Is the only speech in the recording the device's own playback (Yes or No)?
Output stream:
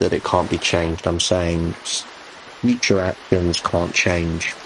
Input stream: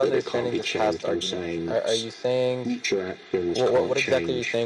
No